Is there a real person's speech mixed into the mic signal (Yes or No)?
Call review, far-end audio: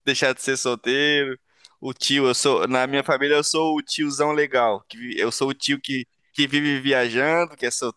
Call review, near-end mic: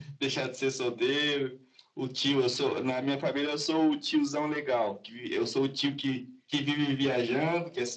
No